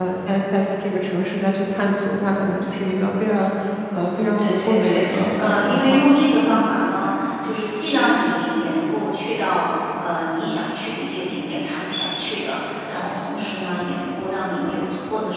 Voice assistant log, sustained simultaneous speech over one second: present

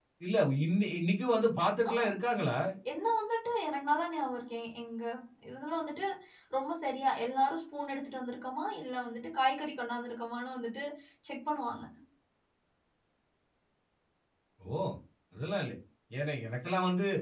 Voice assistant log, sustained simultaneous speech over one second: none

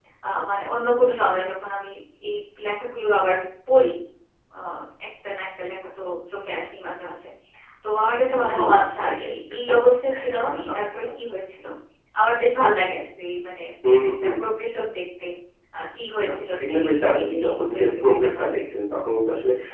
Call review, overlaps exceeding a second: present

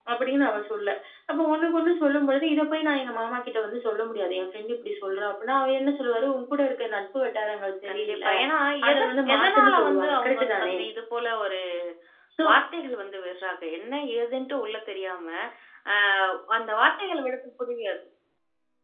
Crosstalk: present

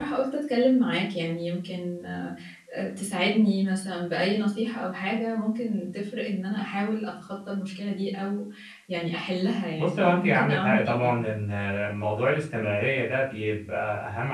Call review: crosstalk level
present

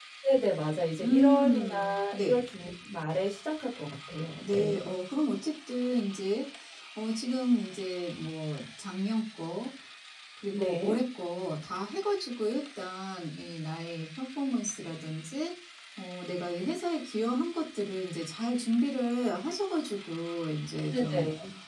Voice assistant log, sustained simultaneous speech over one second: present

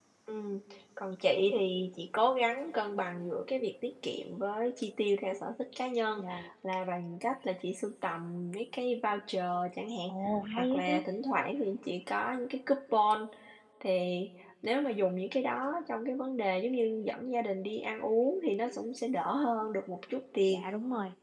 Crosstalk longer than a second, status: none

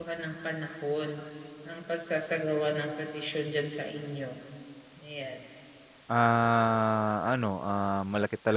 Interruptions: none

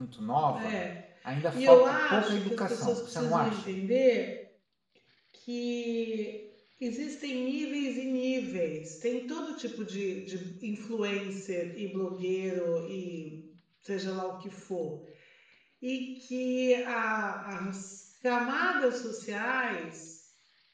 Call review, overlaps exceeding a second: present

